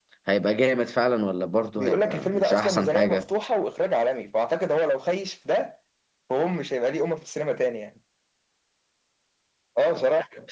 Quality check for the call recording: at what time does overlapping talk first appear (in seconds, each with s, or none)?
1.8 s